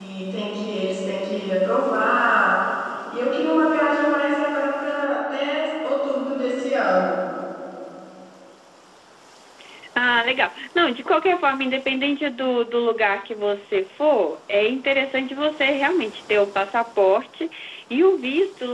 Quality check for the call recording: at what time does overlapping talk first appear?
none

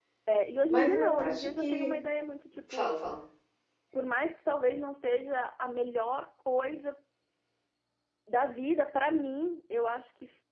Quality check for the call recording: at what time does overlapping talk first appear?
1 s

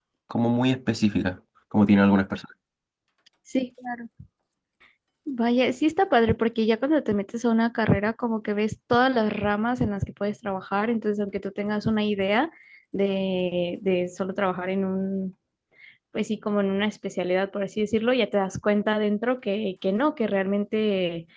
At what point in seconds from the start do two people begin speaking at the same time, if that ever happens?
none

